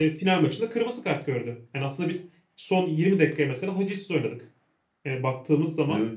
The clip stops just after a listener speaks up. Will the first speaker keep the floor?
Yes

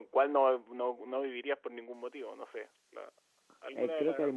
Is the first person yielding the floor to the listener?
Yes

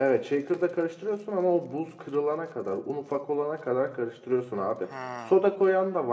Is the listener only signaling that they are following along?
Yes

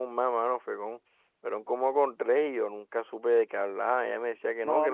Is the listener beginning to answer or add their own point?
No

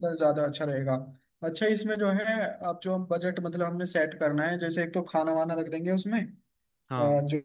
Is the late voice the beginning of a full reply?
No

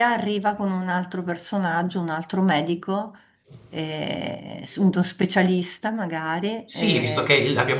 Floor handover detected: Yes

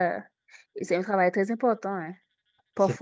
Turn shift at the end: No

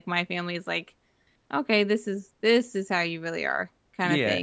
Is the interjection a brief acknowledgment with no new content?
No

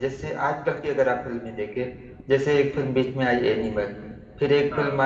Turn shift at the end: No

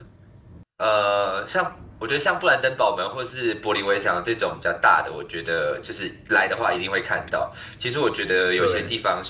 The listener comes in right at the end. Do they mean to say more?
No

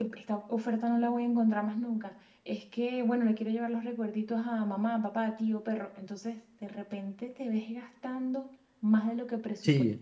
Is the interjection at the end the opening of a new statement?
No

